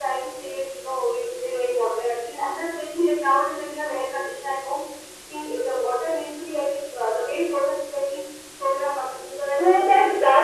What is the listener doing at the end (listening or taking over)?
taking over